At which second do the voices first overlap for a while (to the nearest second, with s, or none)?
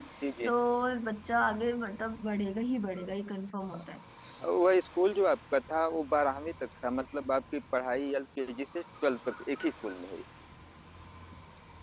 none